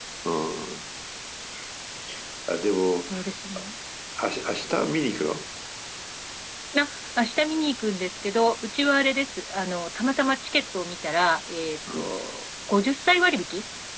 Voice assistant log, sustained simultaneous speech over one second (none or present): none